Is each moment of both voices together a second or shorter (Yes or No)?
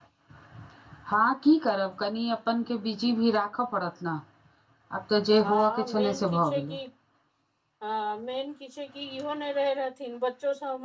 No